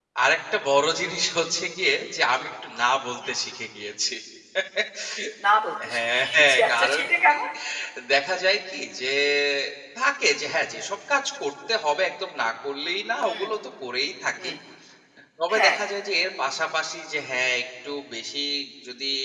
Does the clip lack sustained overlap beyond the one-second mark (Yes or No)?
No